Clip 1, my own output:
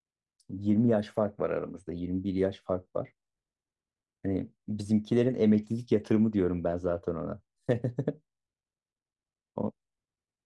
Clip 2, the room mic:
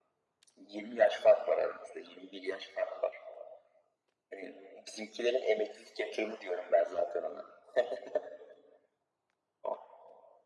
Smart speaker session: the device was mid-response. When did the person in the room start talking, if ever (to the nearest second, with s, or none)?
none